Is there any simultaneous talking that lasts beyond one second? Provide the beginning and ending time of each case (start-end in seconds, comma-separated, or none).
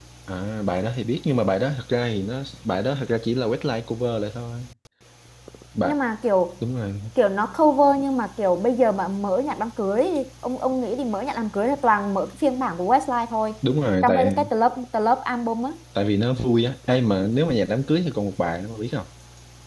none